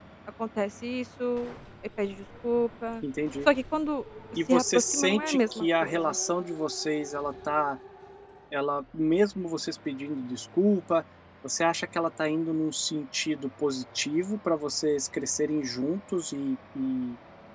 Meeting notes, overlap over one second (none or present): present